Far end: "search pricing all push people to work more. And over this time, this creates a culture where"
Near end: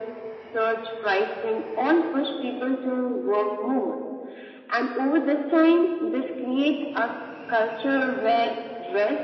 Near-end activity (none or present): none